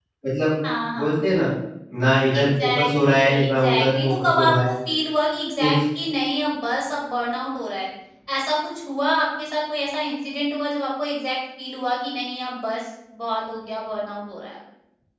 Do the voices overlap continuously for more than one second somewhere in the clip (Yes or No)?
Yes